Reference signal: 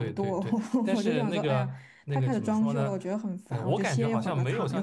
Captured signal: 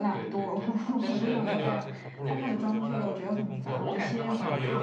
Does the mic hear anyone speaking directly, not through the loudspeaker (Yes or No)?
Yes